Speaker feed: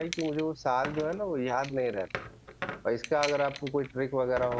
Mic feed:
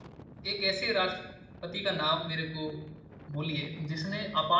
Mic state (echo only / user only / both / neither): user only